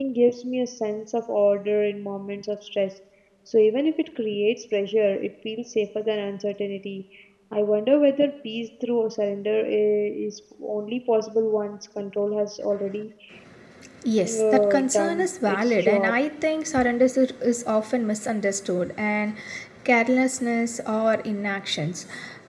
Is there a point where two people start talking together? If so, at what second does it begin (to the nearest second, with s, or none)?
14 s